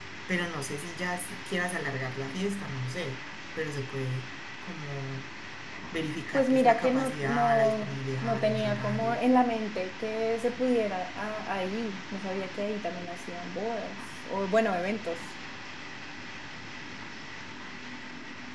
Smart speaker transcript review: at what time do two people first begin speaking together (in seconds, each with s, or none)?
6.3 s